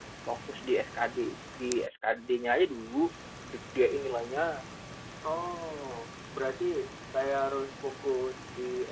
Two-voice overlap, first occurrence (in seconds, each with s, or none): none